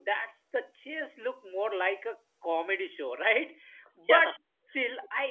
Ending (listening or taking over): listening